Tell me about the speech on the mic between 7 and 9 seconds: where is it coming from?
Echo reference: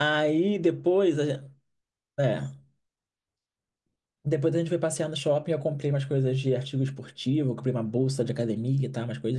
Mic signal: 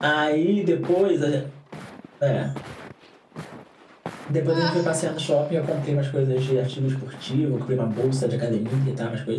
echo only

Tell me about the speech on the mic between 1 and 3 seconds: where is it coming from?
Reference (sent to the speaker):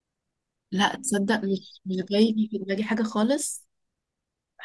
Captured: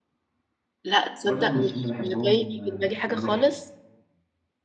both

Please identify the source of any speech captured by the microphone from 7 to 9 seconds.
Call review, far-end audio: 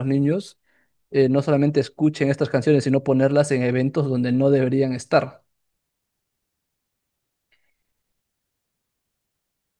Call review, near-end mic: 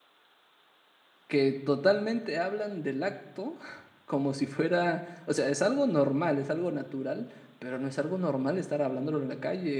user only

